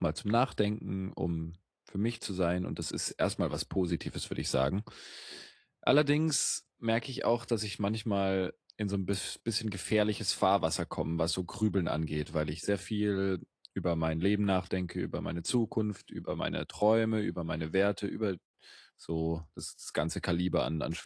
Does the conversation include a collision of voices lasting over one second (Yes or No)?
No